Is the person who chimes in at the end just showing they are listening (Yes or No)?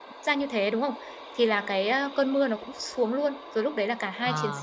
Yes